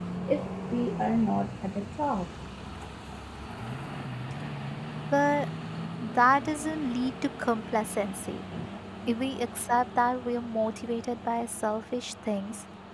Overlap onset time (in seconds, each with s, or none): none